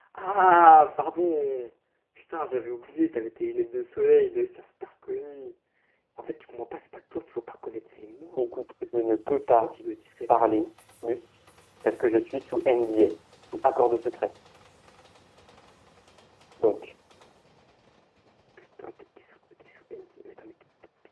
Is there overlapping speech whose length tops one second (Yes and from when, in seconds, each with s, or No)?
No